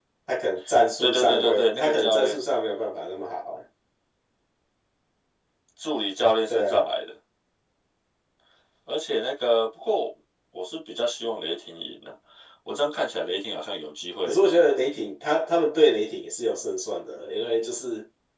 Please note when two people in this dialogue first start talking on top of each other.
1.0 s

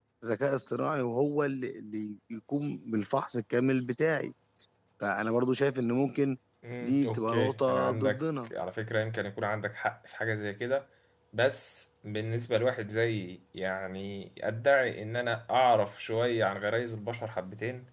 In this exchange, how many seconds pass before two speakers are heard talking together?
6.8 s

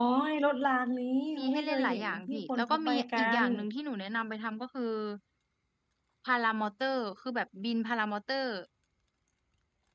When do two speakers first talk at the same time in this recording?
1.5 s

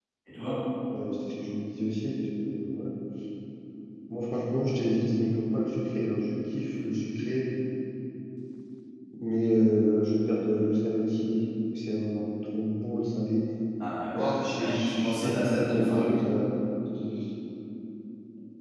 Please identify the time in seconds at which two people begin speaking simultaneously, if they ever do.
14.1 s

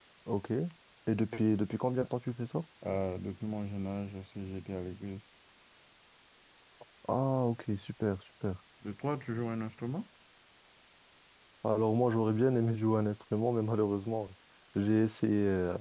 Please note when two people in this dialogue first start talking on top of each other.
none

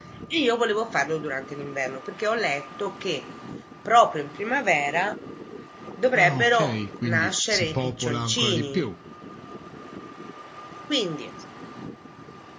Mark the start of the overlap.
6.1 s

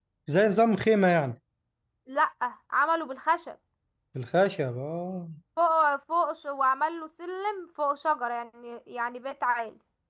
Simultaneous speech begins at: none

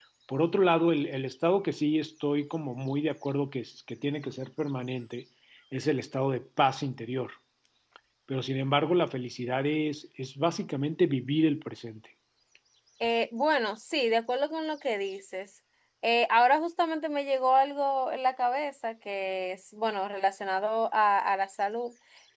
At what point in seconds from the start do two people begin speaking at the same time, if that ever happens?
none

